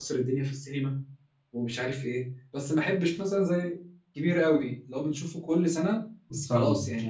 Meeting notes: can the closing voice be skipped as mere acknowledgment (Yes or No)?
Yes